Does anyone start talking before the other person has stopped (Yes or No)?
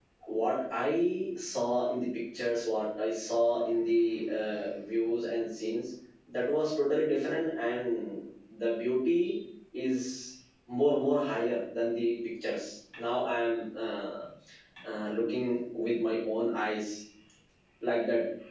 No